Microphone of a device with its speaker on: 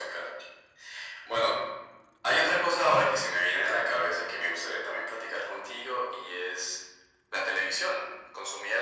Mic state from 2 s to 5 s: echo only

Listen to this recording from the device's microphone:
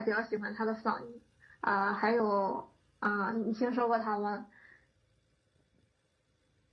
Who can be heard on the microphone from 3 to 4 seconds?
echo only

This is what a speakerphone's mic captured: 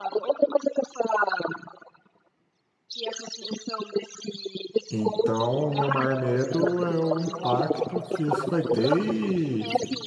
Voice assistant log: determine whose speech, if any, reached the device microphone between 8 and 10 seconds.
both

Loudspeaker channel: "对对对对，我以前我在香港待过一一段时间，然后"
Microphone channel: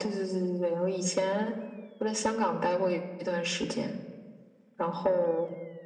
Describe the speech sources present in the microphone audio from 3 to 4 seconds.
echo only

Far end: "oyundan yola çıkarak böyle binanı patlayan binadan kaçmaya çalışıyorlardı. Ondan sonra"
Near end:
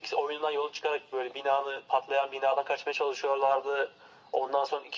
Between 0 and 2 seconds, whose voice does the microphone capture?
echo only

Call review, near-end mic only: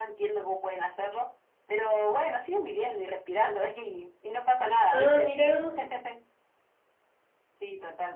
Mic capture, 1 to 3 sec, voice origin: echo only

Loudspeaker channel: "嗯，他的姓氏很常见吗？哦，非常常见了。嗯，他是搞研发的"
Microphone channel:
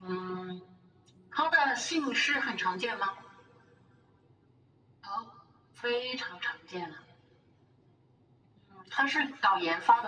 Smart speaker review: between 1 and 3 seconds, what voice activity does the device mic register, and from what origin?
echo only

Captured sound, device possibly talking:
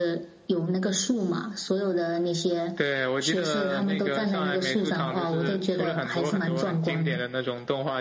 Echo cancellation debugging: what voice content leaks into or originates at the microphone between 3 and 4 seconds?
echo only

